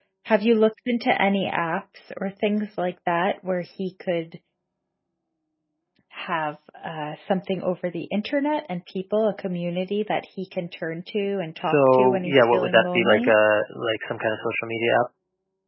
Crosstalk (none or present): present